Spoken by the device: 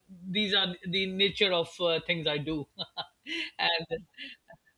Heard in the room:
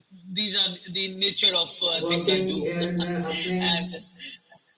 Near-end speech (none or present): present